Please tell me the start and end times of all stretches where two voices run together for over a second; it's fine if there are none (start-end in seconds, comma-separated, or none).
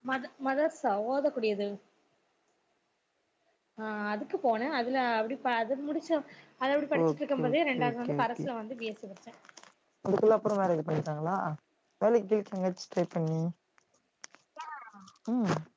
7.0-8.4